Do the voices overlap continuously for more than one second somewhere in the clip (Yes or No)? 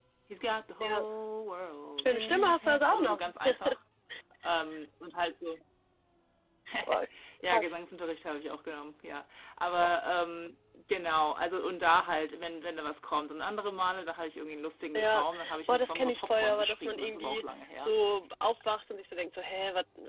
Yes